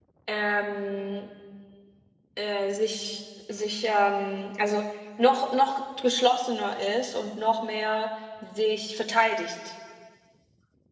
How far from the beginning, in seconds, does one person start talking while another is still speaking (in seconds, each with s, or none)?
none